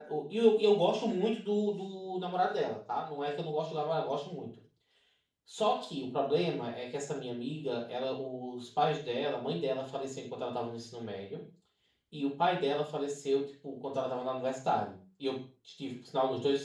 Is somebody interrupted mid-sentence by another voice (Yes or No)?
No